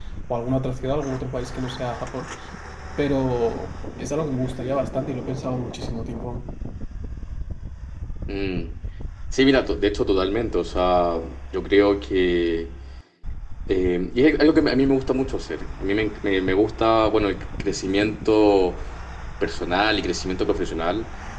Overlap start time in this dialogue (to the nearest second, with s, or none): none